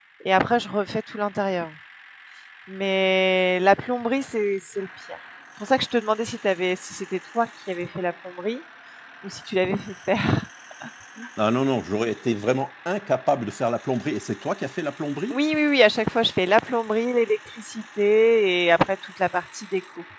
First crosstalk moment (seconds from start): none

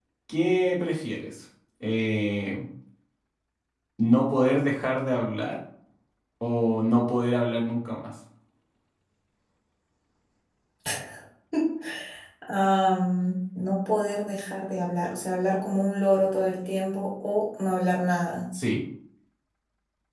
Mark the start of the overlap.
none

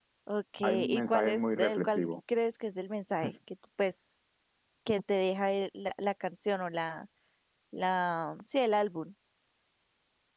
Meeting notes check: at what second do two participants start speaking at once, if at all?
0.6 s

